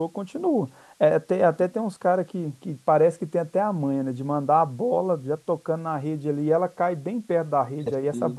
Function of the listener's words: listening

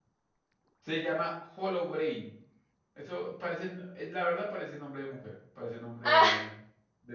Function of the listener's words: listening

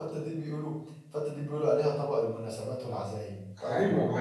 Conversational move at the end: taking over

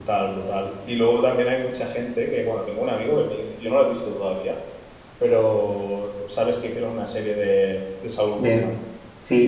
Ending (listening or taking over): taking over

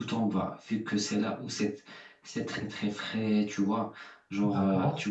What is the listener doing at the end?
listening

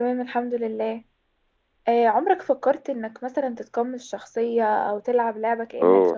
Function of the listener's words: taking over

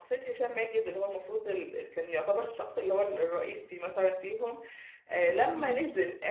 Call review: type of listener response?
listening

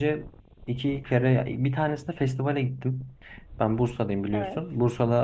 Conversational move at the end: listening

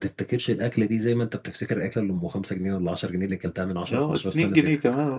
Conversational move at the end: taking over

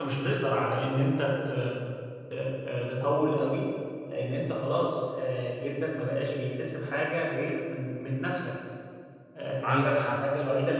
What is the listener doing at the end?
listening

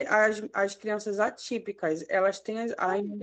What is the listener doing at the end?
listening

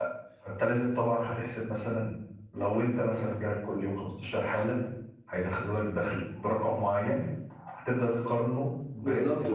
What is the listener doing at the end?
taking over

